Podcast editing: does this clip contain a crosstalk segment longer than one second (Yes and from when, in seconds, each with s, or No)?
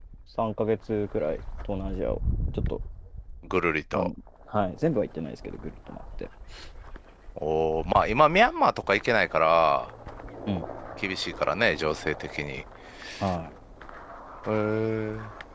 No